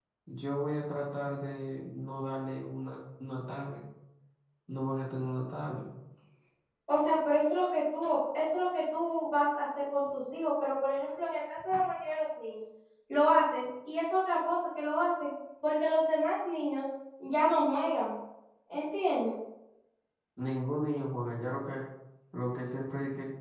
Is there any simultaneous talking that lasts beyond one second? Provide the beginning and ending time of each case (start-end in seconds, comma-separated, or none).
none